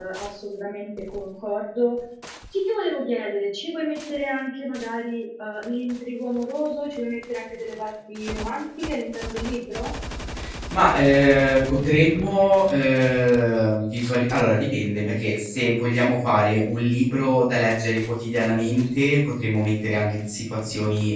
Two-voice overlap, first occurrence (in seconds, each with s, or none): none